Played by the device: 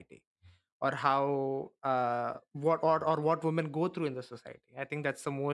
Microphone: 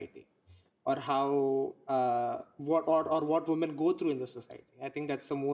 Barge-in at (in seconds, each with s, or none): none